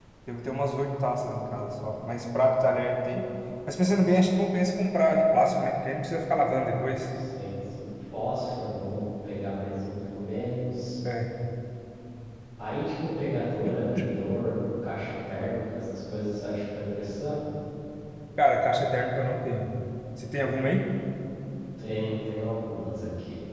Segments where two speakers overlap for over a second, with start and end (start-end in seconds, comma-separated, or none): none